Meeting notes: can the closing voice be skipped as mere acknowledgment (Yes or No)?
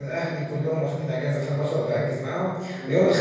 Yes